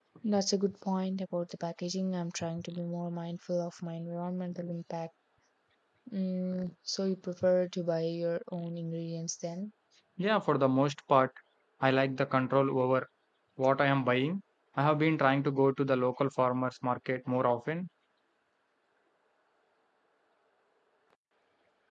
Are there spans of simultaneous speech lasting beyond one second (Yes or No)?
No